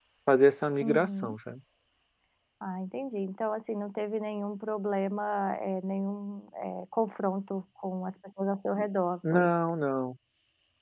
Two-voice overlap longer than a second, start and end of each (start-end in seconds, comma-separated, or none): none